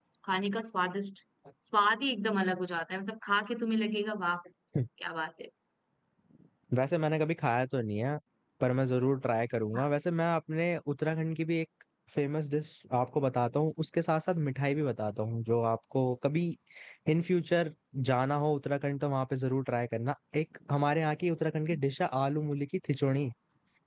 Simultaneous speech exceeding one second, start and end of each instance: none

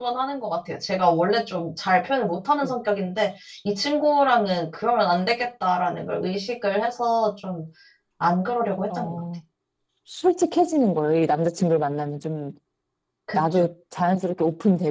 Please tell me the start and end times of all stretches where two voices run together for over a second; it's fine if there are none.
none

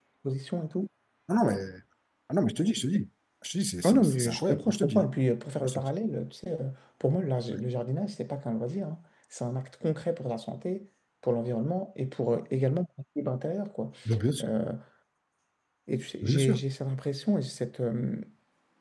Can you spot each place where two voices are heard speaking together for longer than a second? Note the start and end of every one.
3.8-5.1

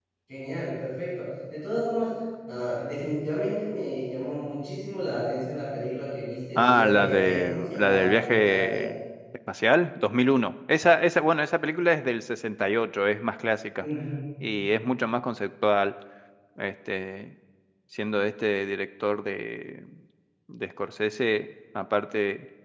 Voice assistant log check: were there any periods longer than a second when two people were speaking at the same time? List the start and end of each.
6.5-8.9

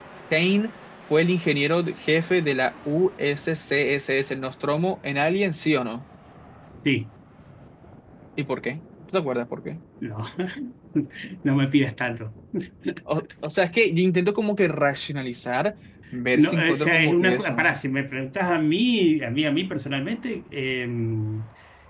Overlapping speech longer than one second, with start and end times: 16.3-17.7

